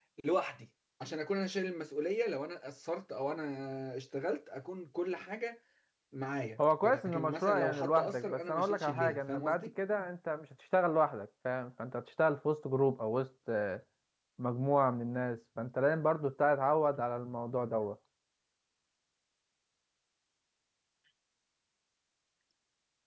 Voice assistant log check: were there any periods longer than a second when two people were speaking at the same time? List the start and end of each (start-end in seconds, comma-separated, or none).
6.6-9.7